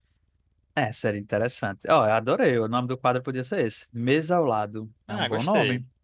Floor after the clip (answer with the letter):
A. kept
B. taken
B